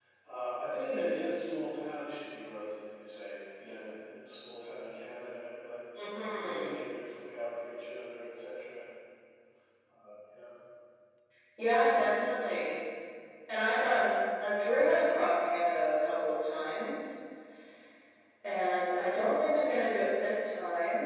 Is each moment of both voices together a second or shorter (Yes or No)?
Yes